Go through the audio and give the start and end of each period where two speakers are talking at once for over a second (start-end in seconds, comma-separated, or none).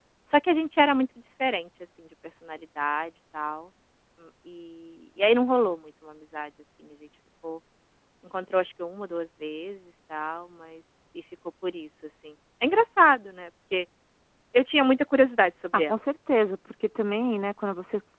none